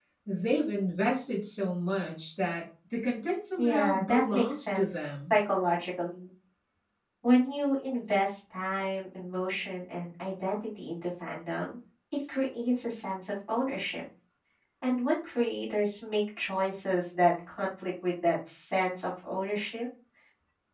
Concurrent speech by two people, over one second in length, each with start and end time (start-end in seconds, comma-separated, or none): 3.6-5.3